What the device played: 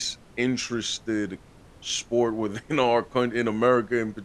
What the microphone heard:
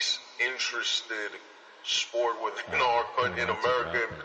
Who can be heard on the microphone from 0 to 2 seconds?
echo only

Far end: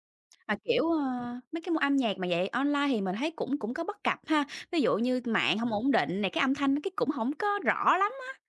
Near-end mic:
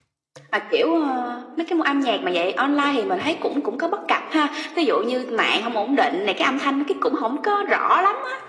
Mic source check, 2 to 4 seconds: echo only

